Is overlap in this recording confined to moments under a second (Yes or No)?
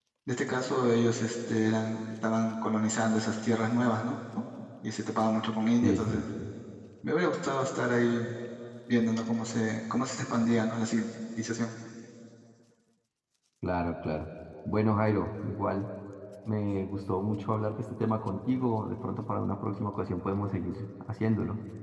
Yes